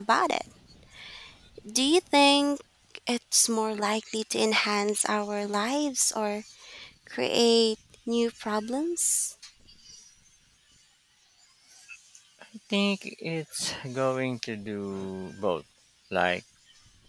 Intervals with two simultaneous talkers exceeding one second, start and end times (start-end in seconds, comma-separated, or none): none